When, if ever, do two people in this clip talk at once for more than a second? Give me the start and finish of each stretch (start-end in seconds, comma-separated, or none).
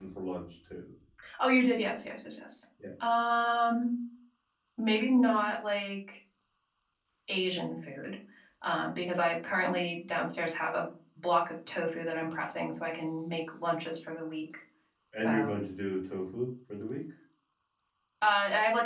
none